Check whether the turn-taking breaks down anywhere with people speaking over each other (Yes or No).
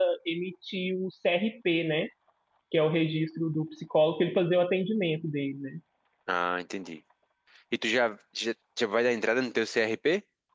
No